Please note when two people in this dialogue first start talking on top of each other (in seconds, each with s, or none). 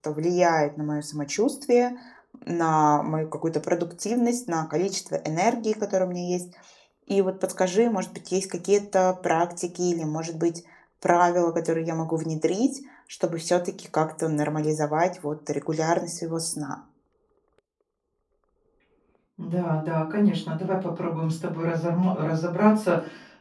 none